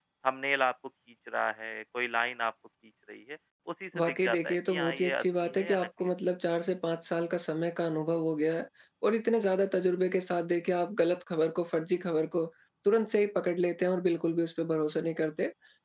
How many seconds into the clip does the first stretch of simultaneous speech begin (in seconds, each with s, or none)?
3.9 s